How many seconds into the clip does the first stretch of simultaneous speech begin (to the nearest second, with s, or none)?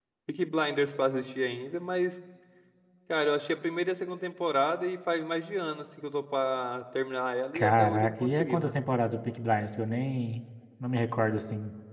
8 s